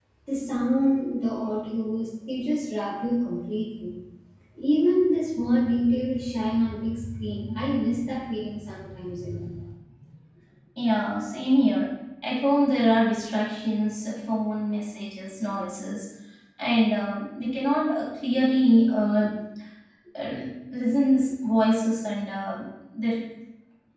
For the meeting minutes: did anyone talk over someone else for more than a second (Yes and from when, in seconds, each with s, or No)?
No